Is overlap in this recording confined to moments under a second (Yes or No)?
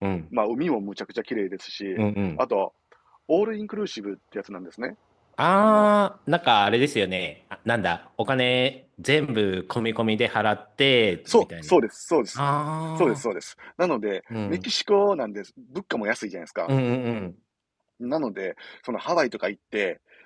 Yes